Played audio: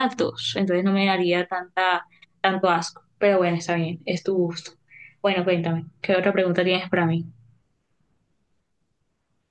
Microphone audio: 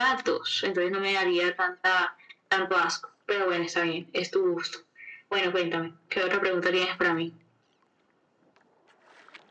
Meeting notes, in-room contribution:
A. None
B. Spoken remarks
A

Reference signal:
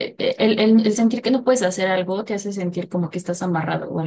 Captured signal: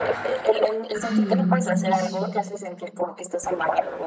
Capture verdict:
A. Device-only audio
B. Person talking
B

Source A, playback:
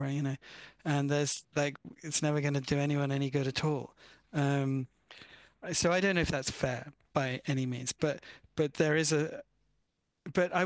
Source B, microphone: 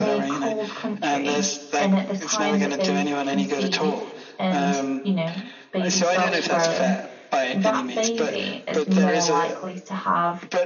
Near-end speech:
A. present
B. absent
A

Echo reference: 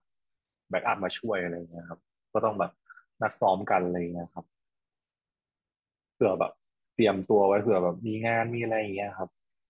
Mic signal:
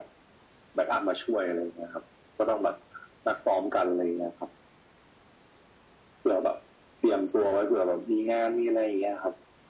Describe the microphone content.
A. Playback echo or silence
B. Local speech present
A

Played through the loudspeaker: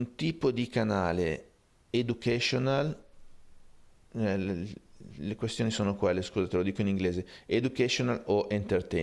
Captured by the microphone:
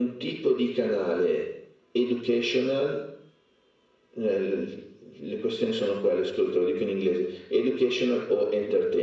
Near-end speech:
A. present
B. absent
B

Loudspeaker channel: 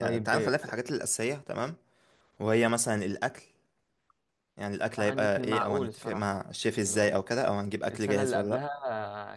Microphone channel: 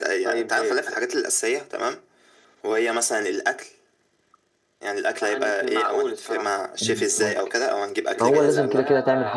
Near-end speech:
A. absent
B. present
B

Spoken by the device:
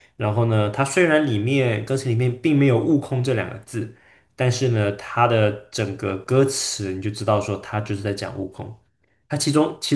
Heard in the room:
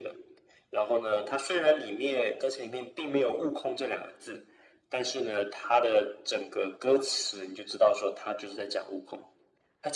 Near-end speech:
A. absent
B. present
A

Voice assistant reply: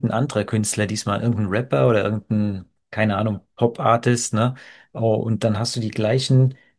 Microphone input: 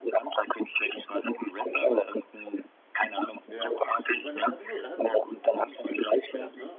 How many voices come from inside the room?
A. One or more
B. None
A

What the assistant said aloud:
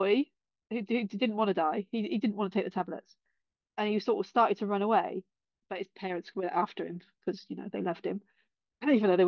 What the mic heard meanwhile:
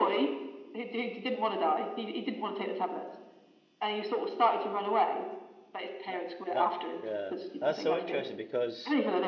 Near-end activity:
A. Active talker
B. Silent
A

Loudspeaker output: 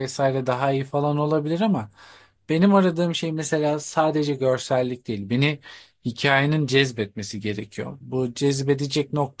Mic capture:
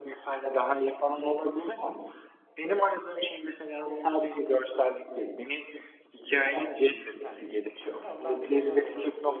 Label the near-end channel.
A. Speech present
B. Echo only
A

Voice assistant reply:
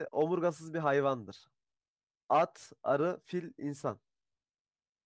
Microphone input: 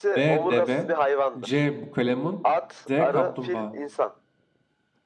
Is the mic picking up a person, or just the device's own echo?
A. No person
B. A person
B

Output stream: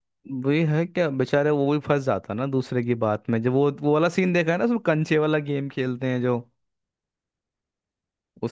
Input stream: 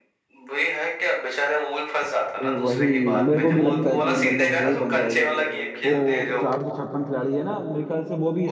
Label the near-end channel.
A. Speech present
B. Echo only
A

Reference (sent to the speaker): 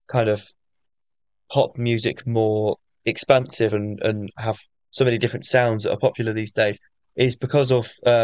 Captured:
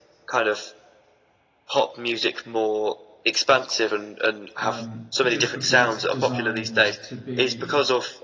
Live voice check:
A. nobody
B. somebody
B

